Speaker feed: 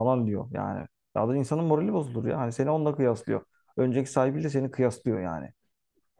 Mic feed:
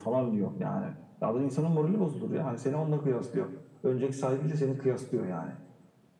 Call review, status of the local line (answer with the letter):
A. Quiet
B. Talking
A